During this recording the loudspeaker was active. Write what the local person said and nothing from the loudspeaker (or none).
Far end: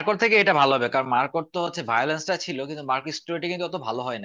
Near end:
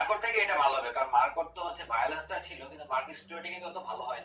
none